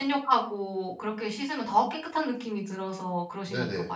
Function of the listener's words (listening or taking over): taking over